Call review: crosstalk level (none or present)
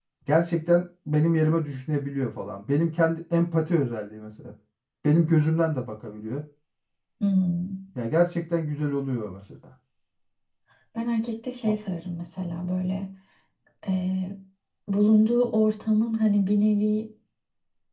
none